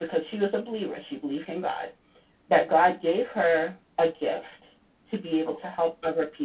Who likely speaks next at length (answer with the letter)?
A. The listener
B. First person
B